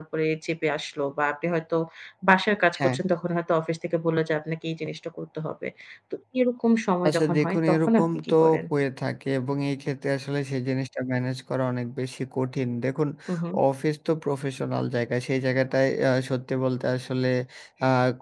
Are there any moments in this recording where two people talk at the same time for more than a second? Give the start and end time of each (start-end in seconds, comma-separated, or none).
7.1-8.3